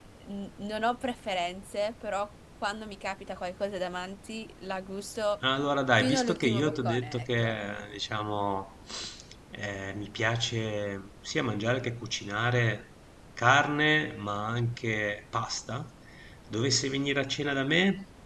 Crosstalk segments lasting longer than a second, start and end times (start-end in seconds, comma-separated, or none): 6.0-7.6